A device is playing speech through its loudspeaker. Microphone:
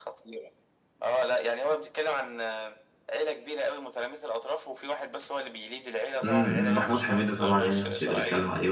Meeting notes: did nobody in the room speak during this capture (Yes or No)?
No